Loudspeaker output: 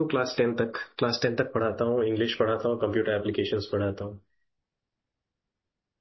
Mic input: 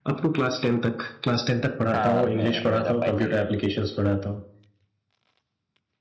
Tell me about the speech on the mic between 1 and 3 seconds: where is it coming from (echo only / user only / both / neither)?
both